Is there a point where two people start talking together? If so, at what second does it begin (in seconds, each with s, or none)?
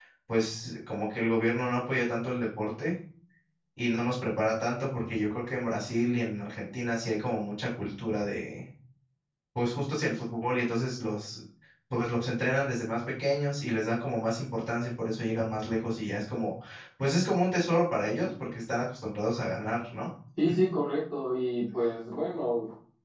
none